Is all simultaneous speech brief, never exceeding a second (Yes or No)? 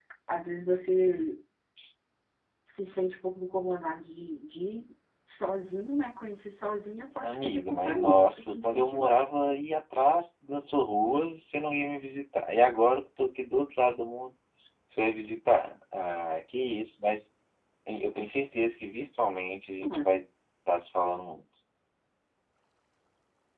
No